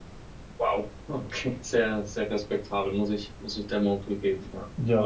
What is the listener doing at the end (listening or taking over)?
taking over